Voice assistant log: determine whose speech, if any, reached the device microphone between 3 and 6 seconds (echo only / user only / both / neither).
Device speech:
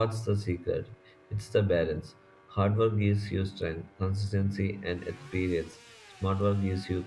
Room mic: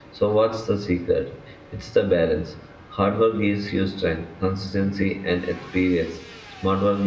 echo only